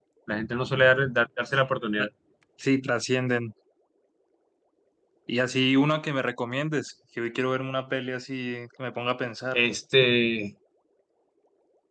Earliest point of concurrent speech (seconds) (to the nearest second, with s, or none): none